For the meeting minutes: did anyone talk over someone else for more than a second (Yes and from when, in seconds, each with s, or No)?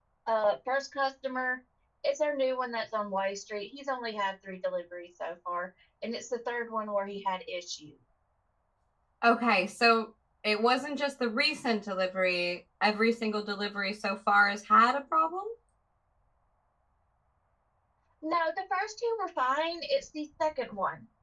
No